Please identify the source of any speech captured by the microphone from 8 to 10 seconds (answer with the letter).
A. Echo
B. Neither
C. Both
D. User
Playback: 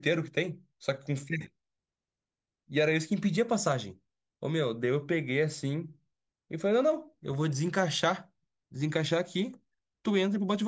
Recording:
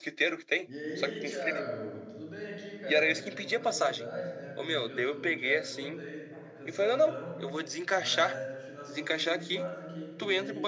C